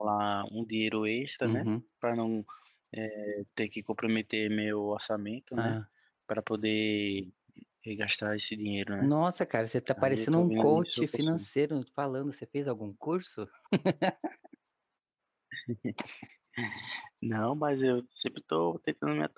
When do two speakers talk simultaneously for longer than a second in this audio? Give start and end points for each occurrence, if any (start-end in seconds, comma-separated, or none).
10.0-11.5